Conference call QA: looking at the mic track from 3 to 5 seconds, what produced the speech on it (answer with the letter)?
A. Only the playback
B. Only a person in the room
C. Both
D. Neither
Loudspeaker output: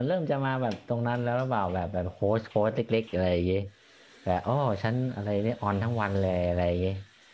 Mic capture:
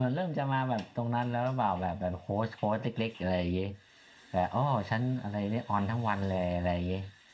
A